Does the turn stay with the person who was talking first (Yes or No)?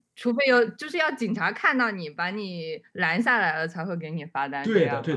No